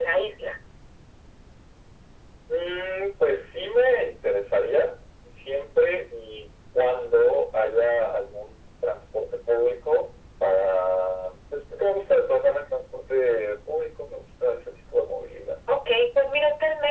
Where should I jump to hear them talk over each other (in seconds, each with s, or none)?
none